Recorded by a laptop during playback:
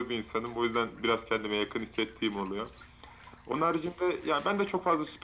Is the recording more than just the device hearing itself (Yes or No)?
No